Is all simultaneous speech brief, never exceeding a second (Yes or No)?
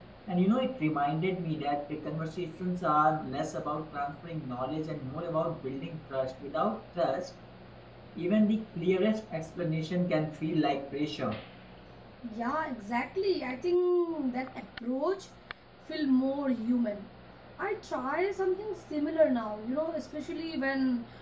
Yes